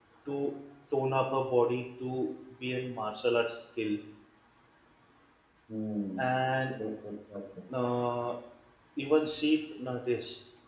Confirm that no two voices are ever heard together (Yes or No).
Yes